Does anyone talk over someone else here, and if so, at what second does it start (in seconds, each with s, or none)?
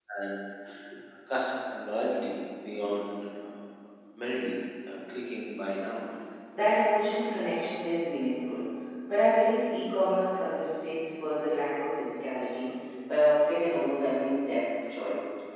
none